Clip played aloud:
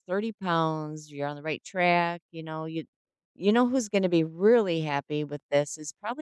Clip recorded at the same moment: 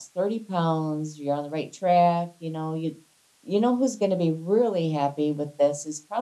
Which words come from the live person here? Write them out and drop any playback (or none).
none